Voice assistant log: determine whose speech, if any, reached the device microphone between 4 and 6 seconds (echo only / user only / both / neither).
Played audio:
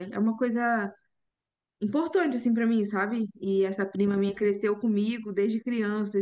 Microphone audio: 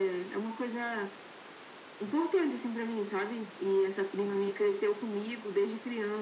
echo only